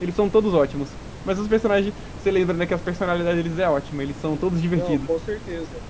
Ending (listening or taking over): taking over